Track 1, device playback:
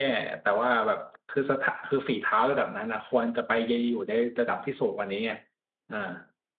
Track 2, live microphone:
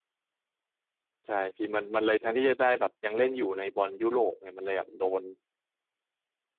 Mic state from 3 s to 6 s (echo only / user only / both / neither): user only